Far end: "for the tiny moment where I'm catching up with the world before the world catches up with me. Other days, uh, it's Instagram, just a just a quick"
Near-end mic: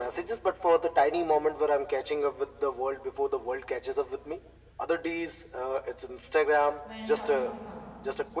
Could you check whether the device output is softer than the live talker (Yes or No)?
No